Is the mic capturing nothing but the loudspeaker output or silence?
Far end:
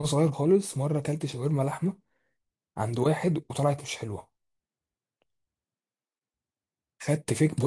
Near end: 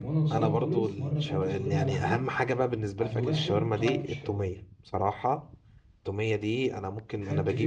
No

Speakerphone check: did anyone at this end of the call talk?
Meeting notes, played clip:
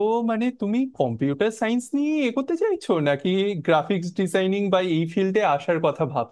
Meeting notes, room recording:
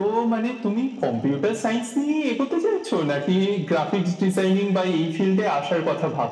No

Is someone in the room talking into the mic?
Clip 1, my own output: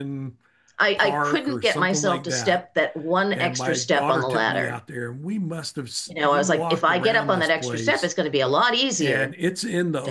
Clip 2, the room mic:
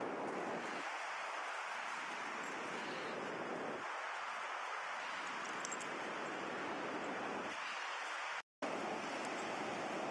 No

